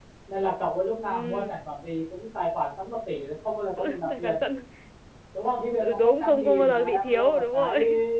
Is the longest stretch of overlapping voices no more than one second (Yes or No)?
No